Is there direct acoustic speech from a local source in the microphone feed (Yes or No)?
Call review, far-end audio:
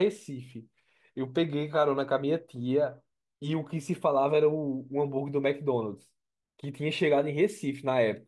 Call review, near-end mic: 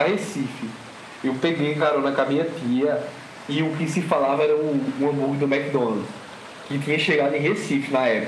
No